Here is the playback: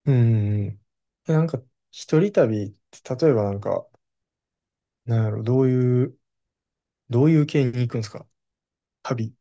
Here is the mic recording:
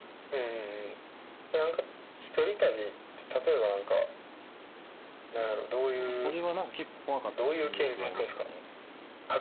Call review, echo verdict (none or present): present